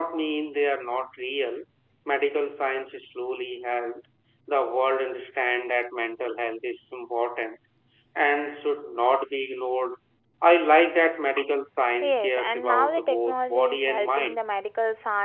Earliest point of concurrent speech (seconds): 12.0 s

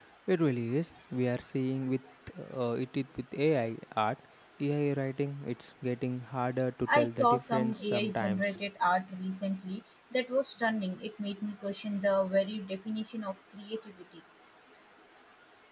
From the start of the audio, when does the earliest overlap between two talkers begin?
6.9 s

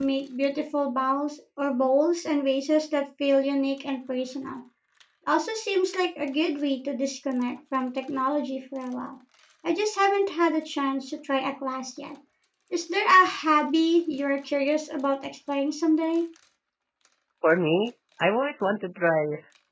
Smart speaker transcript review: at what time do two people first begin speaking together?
none

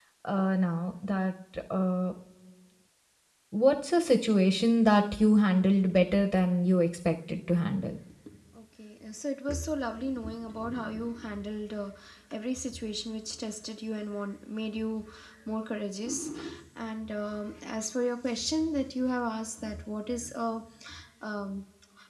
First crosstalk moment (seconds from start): none

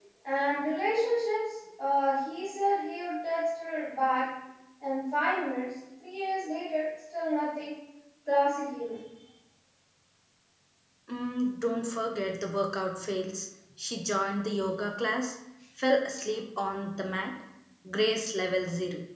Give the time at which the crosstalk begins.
none

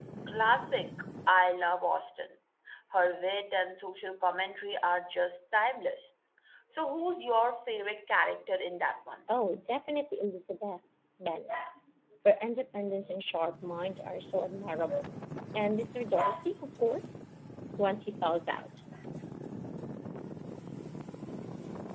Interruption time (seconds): none

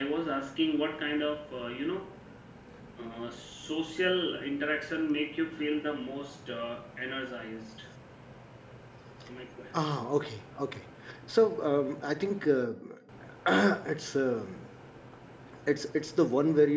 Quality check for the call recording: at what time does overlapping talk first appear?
none

